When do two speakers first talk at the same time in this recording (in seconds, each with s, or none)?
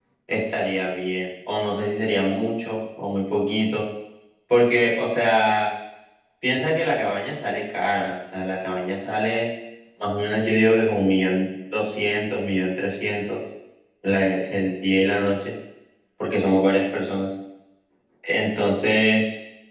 none